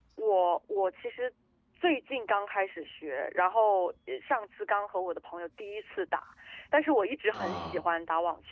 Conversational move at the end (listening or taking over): listening